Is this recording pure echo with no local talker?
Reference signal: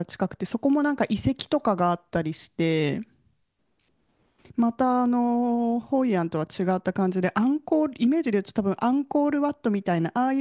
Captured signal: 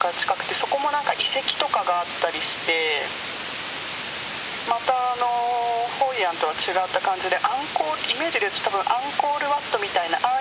Yes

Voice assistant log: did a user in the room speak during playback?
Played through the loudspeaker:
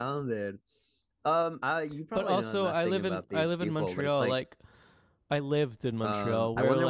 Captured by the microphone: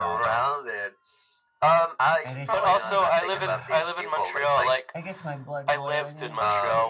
Yes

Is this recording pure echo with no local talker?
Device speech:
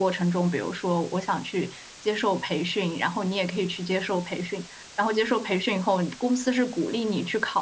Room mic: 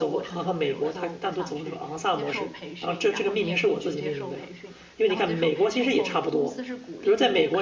No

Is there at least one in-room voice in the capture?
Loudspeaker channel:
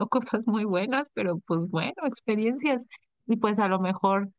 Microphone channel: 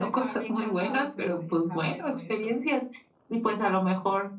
Yes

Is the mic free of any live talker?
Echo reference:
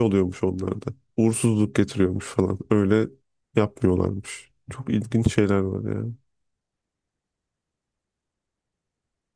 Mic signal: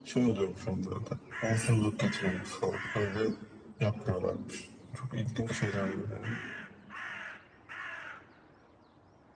Yes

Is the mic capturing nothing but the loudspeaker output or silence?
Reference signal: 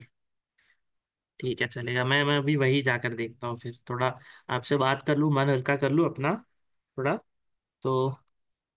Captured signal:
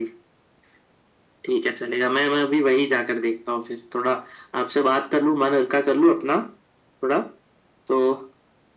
Yes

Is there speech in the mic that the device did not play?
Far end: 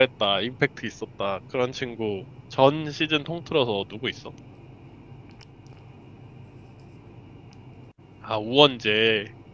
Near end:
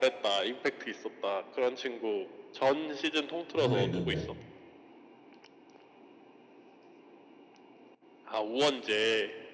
Yes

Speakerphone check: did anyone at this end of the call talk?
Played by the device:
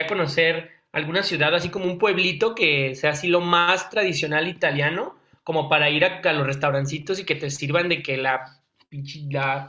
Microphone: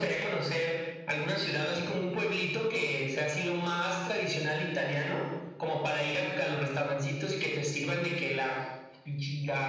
No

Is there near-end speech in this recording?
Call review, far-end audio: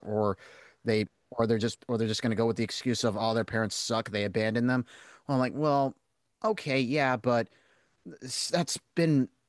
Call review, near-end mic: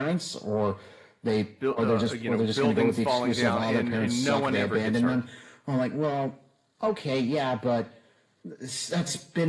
Yes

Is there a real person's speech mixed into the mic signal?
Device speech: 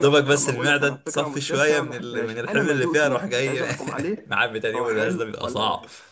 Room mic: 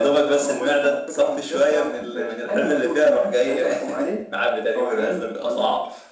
No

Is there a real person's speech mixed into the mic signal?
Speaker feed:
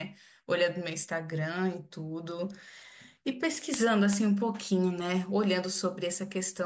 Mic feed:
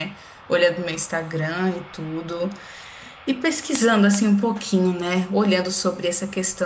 No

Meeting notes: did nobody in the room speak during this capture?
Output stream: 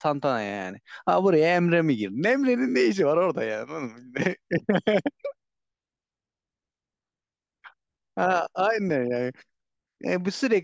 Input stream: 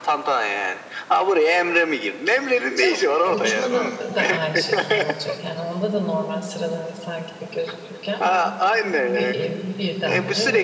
No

